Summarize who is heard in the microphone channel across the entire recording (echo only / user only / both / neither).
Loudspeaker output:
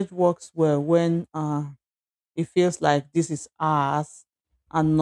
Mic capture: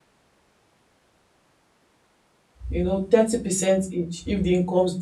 user only